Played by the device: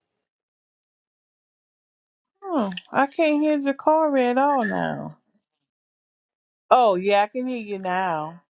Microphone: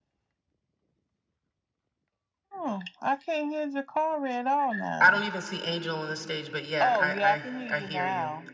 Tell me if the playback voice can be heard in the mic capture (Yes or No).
Yes